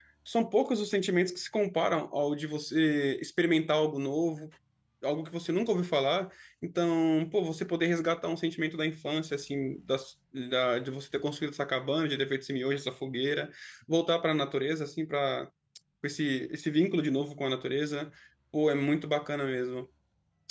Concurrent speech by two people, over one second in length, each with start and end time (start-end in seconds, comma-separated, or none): none